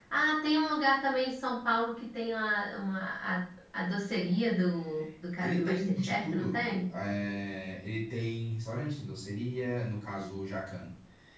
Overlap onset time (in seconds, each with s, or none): 5.4 s